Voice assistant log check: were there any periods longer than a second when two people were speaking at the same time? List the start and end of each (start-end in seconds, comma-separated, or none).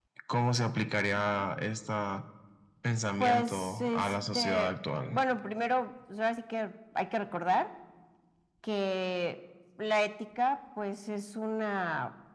3.2-4.7